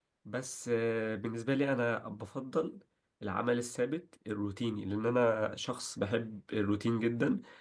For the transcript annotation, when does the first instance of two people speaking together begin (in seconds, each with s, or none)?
none